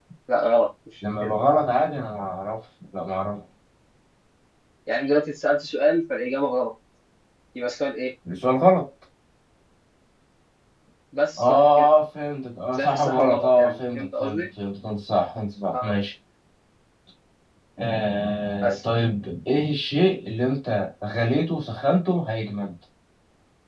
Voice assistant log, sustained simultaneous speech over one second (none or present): present